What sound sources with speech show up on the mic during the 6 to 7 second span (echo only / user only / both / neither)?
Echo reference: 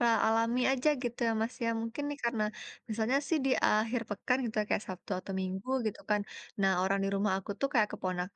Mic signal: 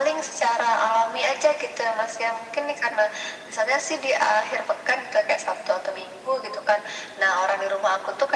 echo only